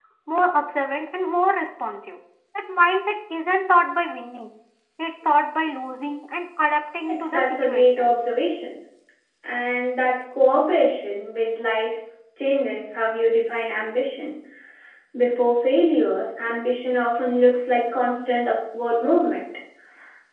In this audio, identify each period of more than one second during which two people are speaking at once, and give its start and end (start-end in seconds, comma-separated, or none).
7.1-8.3